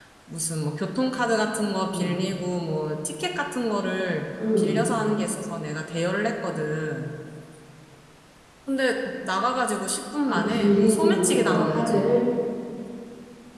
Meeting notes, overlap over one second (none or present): present